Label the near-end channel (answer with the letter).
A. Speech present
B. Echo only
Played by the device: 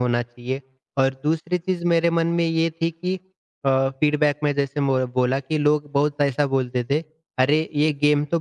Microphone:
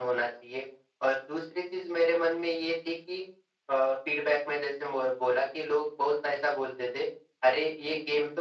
B